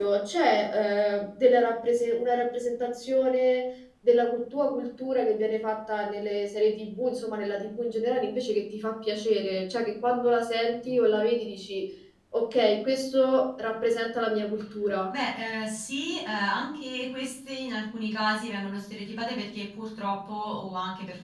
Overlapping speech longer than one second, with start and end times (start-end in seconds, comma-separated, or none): none